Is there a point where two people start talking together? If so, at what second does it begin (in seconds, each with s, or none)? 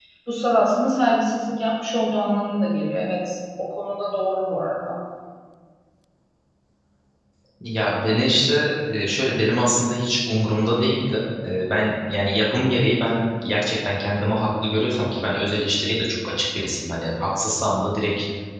none